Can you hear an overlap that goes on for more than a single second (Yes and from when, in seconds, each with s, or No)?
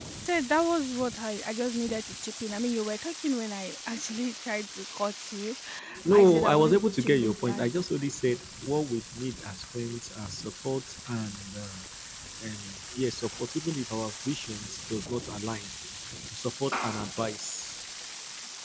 Yes, from 6.1 s